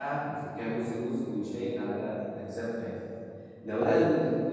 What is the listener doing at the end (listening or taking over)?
listening